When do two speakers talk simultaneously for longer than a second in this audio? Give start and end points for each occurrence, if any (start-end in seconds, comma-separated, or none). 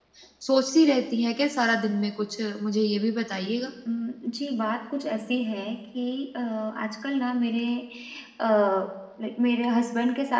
none